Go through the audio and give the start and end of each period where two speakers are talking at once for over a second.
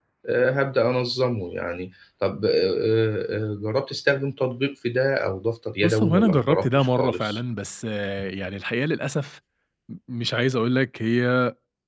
5.8-7.4

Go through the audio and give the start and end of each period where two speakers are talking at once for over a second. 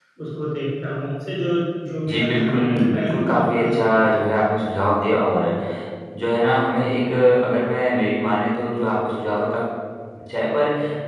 2.1-4.3

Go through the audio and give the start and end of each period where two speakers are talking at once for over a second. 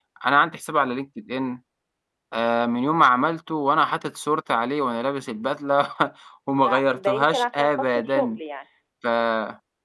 6.5-8.4

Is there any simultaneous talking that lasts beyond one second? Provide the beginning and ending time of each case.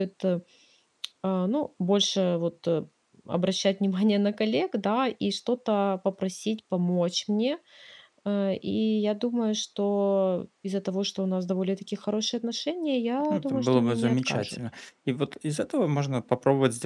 13.3-14.6

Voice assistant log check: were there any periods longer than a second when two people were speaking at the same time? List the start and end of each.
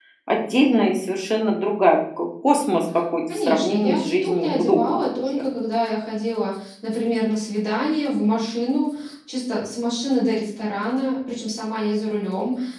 3.3-5.3

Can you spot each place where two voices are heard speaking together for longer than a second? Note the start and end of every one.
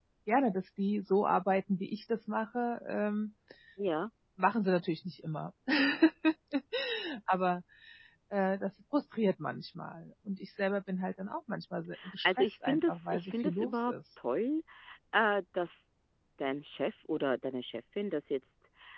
12.2-13.9

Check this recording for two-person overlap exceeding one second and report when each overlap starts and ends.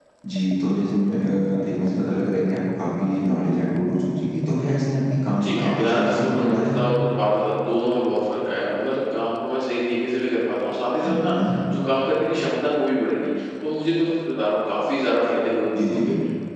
5.4-6.9

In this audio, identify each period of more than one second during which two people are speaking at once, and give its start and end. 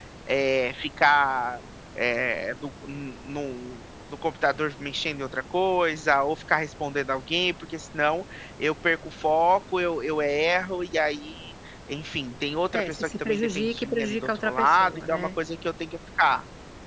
12.7-15.3

